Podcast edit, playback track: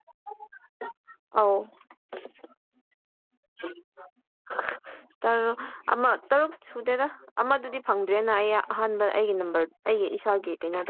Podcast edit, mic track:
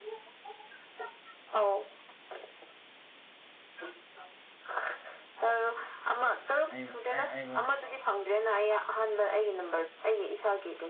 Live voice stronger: No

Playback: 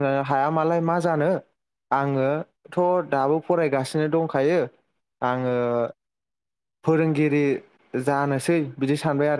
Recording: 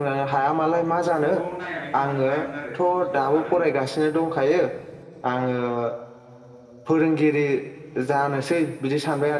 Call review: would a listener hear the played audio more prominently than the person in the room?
Yes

